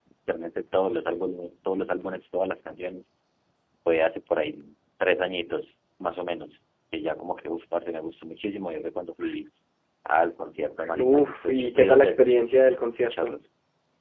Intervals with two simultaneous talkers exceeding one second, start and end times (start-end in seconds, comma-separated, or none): 11.0-12.3